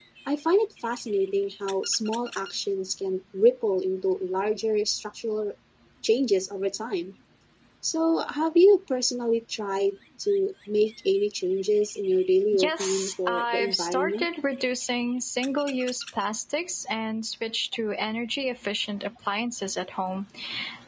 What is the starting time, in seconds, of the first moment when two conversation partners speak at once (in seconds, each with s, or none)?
12.5 s